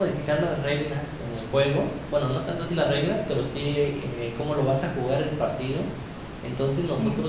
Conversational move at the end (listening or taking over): listening